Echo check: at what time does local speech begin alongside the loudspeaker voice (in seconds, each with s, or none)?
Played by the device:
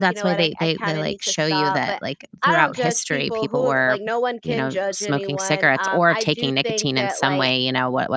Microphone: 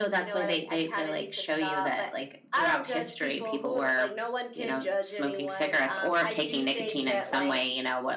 none